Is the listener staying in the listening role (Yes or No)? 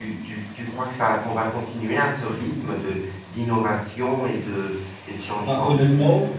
No